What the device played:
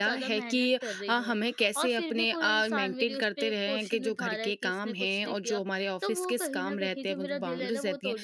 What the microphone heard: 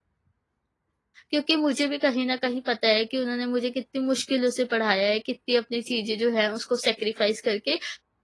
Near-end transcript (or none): क्योंकि मुझे भी कहीं न कहीं पता है कि उन्होंने मुझे कितनी मुश्किलों से पढ़ाया है, कितनी अपनी चीज़ें जो हैं उसको सैक्रिफ़ाइस करके।